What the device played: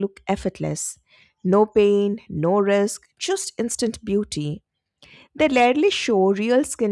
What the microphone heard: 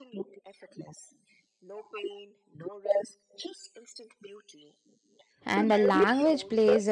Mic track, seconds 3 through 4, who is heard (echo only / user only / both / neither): echo only